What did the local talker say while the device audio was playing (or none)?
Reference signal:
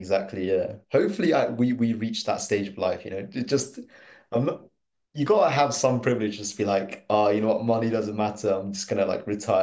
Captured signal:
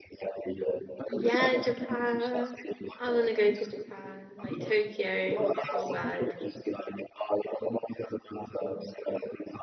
Yeah, Japan. I want to go to Japan, like Tokyo, real bad.